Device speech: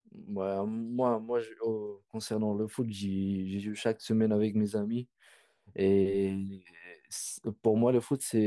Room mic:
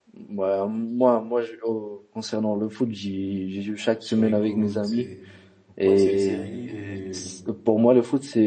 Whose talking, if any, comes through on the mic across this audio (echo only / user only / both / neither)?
both